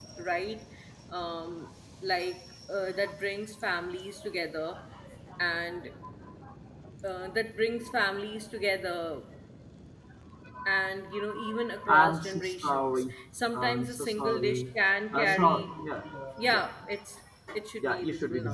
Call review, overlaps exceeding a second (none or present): present